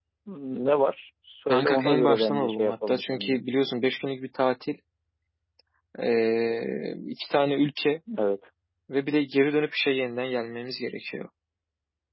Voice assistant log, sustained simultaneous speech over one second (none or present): present